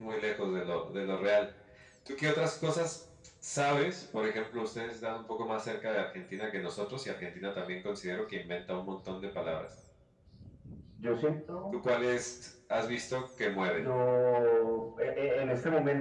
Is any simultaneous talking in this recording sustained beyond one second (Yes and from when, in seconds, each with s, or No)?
No